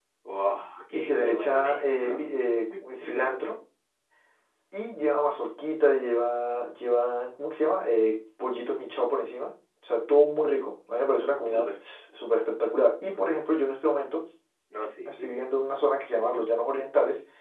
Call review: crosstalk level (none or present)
present